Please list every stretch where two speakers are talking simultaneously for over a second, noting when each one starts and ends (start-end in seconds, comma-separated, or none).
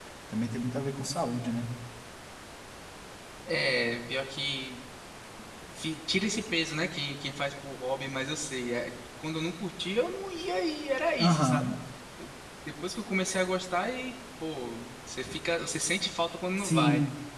none